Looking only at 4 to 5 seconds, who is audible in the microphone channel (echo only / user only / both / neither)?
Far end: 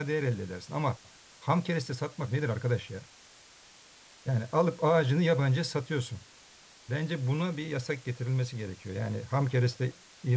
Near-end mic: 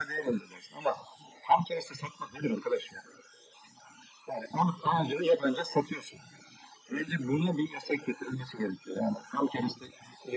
echo only